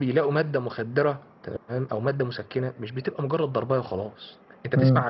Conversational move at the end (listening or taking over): listening